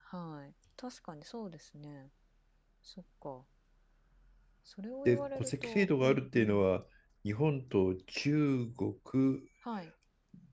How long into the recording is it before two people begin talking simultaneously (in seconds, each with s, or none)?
5.0 s